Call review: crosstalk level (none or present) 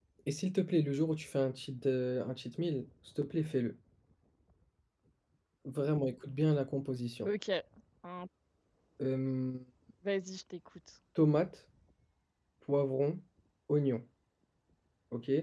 none